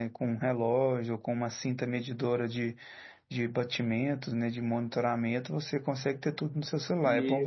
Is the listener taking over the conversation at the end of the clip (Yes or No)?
Yes